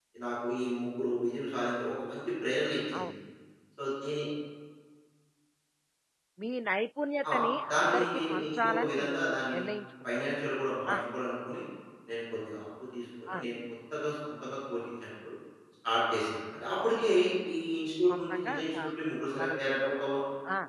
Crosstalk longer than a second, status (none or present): present